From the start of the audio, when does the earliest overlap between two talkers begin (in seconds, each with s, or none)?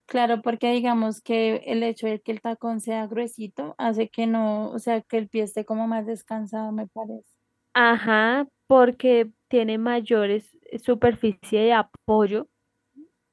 none